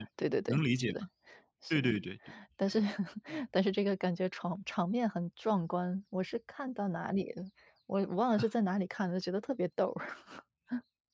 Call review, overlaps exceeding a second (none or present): none